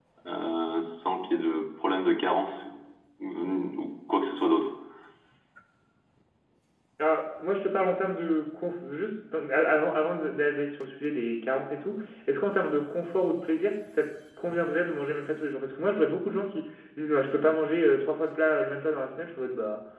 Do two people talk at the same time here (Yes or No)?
No